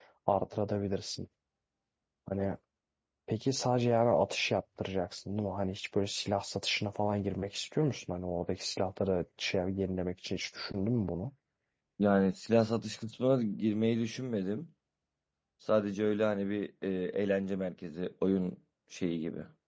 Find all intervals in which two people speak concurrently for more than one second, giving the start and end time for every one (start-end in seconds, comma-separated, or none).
none